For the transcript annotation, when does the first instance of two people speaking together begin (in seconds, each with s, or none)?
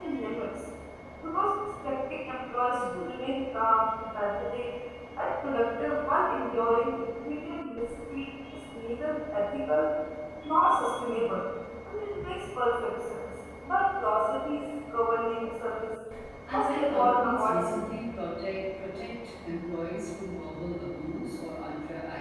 16.5 s